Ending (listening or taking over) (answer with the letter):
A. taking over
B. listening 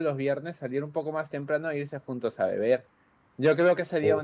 B